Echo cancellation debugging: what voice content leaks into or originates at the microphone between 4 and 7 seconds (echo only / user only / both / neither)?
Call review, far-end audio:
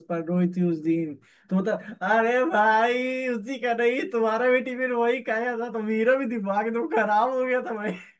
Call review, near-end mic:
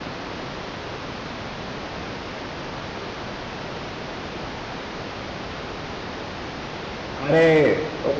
neither